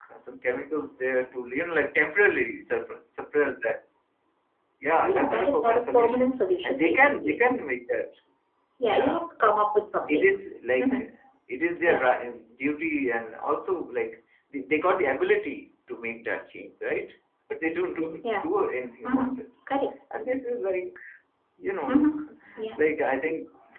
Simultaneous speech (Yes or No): Yes